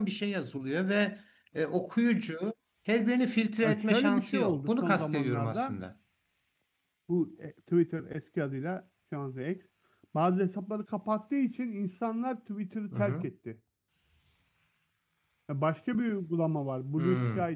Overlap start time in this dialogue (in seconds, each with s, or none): 3.6 s